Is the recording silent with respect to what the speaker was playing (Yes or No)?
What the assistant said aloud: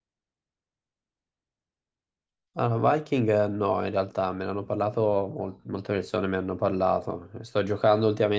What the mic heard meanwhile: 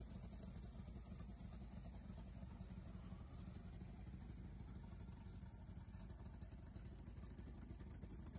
Yes